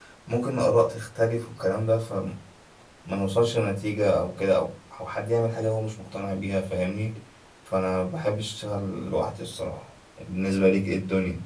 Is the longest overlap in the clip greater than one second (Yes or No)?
No